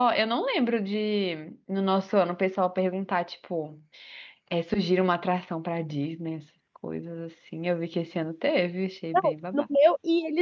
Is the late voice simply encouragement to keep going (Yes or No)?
No